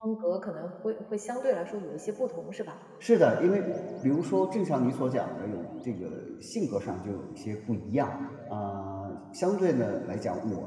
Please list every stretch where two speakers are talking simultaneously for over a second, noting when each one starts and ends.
none

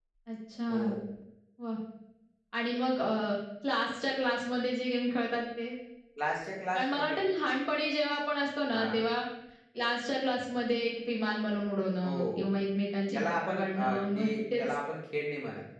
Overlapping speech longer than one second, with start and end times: 13.1-14.7

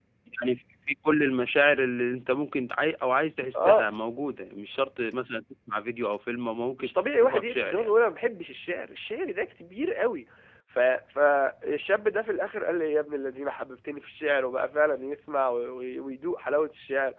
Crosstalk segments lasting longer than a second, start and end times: 6.8-8.0

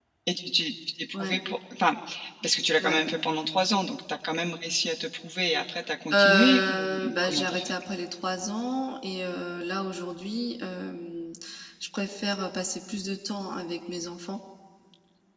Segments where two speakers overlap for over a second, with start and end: 6.1-7.8

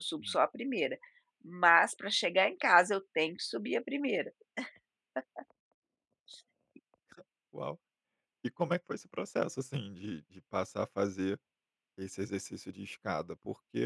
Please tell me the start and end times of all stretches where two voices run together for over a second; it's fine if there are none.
none

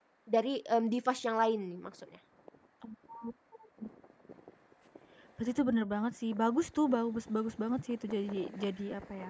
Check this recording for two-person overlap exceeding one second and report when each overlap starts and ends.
none

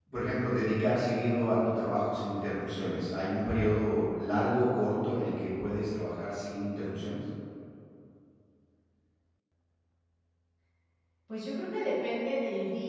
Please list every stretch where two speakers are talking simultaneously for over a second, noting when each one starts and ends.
none

